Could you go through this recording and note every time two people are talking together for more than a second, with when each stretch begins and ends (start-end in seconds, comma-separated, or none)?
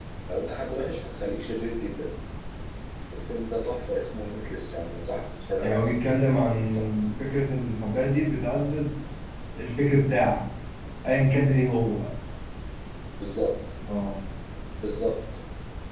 5.6-6.8